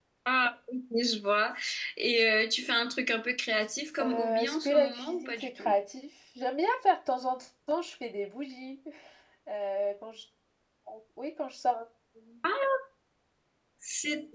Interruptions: present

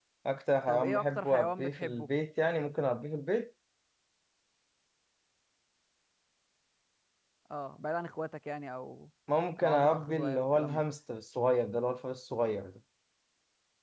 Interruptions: present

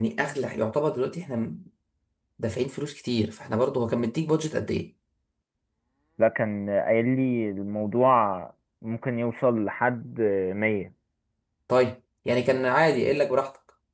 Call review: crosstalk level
none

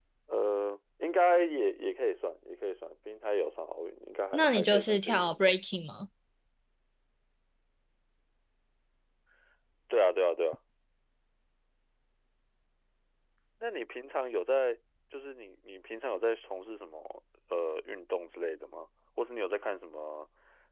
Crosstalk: present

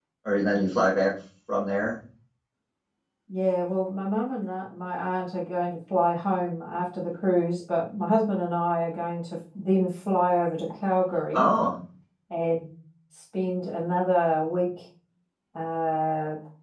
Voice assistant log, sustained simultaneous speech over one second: none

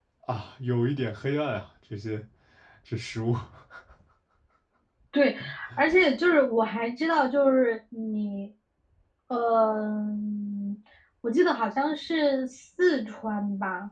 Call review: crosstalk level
none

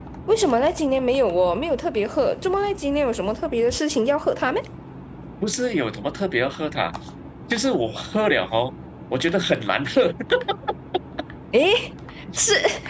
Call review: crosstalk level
none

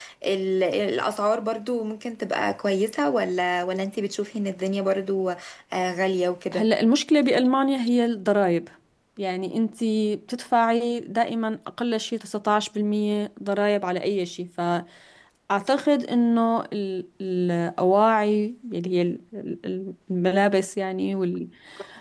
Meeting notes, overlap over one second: none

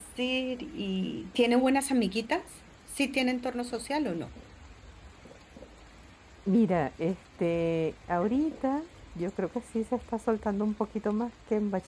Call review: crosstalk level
none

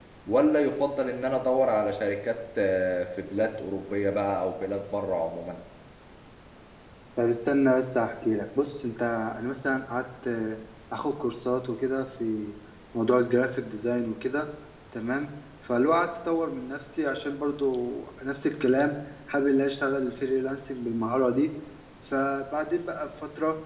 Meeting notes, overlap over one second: none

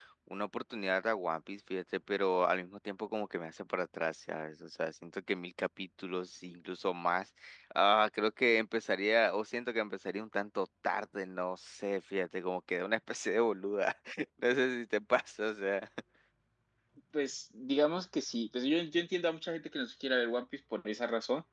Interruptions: none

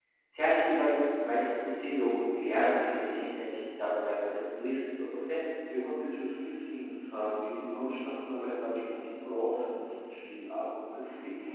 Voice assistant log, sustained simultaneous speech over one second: none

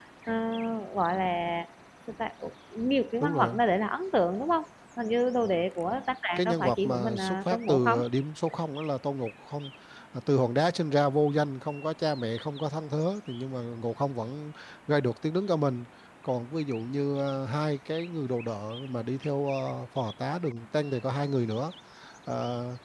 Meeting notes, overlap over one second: present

